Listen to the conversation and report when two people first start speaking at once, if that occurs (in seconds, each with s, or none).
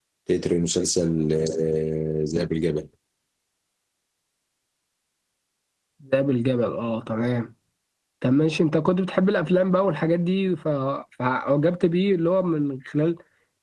none